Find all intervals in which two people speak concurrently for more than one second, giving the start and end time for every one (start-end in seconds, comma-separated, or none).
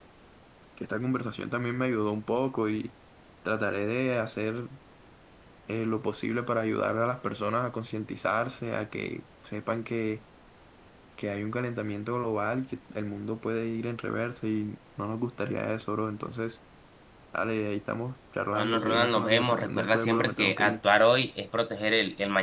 18.5-20.8